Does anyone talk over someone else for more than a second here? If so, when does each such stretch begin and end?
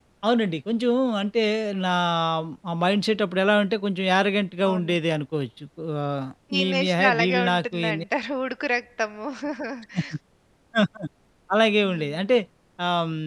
6.6-8.0

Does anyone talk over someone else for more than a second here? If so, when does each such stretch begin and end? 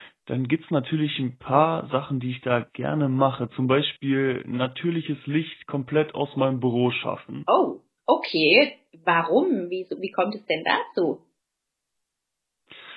none

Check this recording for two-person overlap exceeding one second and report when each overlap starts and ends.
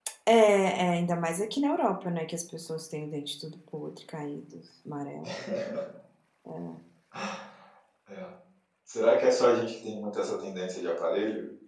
none

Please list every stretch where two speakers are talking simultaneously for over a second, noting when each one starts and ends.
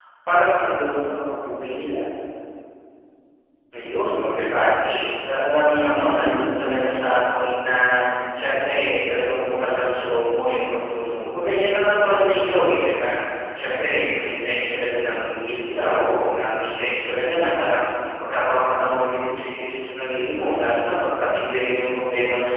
none

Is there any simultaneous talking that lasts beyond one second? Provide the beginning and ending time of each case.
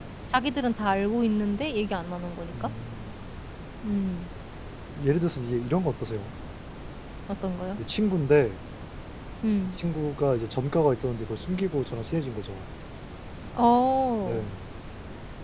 none

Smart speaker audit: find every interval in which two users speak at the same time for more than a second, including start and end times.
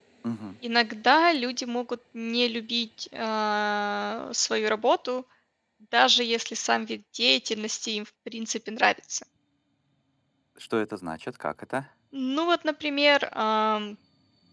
none

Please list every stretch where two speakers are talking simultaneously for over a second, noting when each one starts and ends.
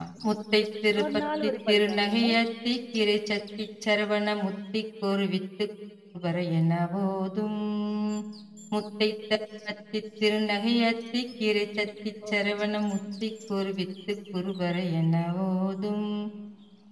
1.0-2.4

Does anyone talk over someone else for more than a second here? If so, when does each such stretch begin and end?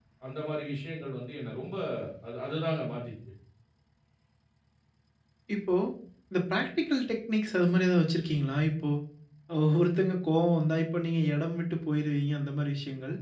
none

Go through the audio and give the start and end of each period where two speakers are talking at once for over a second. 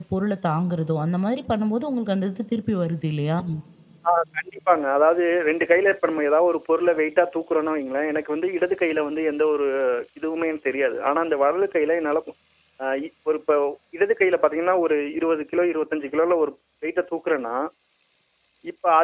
none

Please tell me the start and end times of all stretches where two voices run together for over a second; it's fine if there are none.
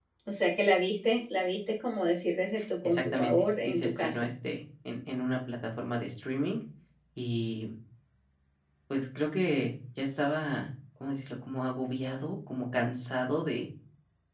2.8-4.3

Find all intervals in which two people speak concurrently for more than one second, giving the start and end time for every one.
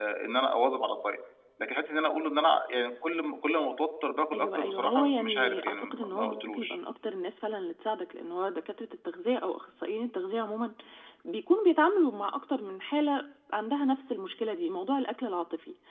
4.3-6.8

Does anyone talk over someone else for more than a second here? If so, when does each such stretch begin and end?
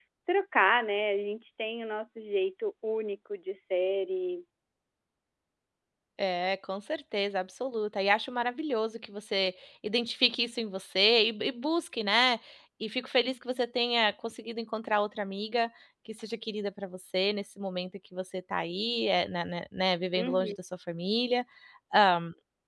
none

